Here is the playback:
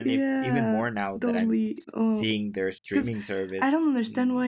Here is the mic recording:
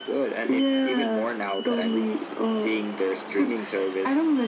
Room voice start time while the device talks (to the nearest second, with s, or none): none